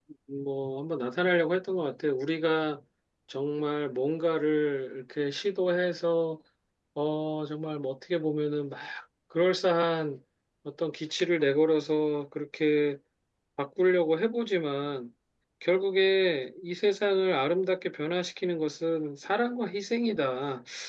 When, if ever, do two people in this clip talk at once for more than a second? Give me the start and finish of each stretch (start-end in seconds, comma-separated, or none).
none